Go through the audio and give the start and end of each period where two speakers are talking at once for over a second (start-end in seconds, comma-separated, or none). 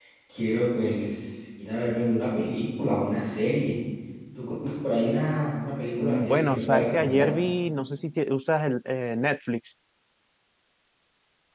6.0-7.3